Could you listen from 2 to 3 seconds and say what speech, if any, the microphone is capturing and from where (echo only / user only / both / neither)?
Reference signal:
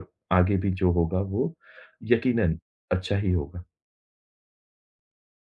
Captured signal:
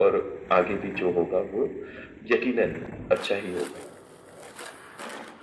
echo only